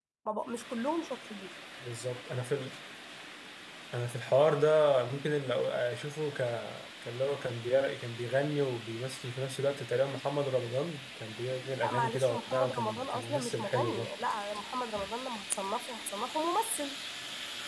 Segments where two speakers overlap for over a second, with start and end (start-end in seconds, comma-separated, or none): 11.8-14.1